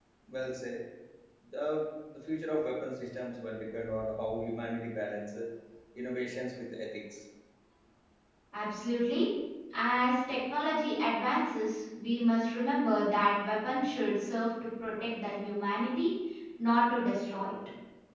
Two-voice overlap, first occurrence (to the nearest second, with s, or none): none